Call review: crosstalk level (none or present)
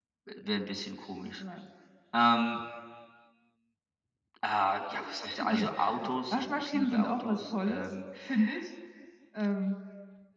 present